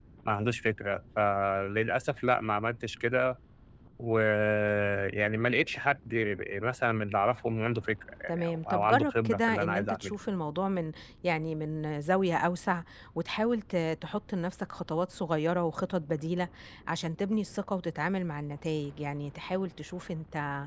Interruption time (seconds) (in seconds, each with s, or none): 8.3 s